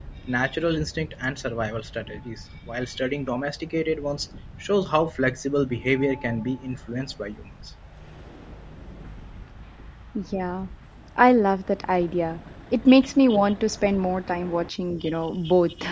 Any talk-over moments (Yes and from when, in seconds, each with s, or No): No